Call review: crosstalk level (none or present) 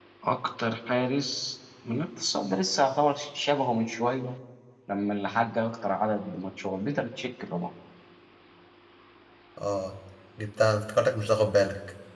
none